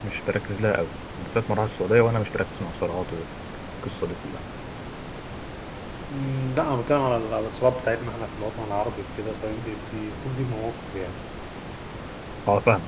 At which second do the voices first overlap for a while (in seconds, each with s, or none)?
none